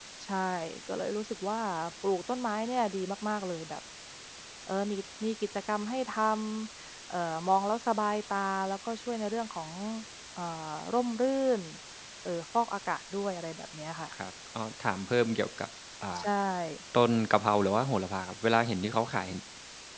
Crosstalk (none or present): none